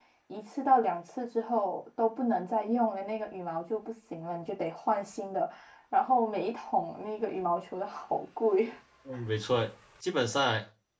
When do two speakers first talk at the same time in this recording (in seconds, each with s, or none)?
none